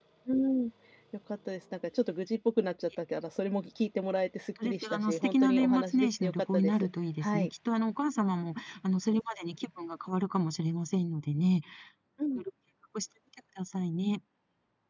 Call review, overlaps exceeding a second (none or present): present